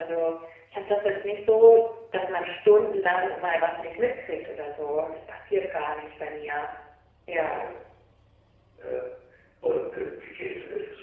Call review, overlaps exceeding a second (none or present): none